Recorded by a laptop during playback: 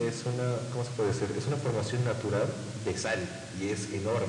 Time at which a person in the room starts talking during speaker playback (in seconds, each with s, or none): none